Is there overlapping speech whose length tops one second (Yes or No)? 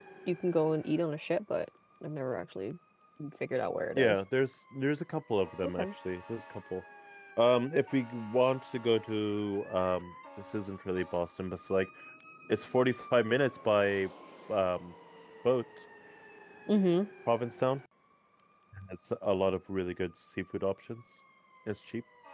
No